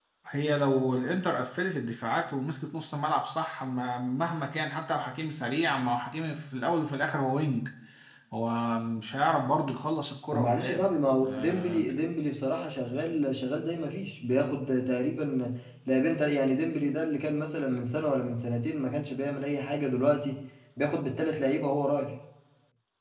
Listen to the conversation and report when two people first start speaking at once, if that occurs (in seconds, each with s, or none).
10.3 s